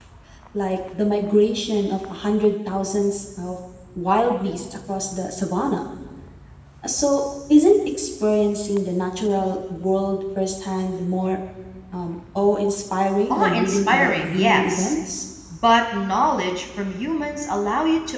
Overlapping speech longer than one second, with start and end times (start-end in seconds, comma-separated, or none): 13.3-14.9